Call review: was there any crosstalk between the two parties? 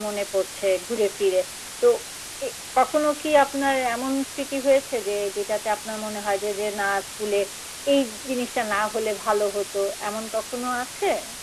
No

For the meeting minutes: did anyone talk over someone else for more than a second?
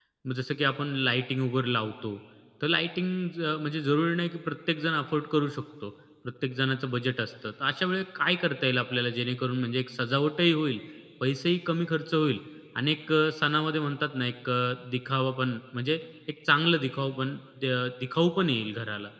No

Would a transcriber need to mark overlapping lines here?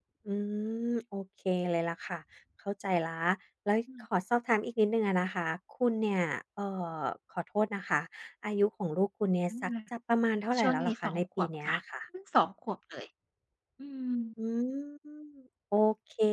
Yes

